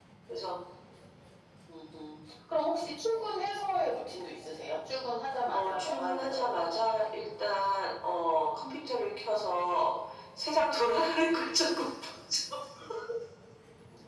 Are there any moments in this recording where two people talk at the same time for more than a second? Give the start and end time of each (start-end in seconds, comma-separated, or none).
5.5-6.8